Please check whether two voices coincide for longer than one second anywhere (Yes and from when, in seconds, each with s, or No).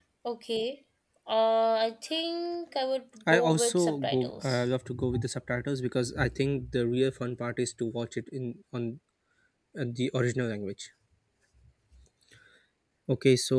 Yes, from 3.3 s